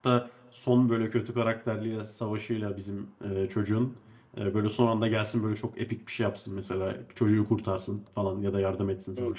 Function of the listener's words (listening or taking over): taking over